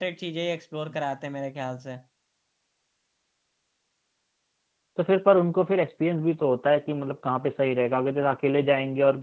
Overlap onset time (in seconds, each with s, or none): none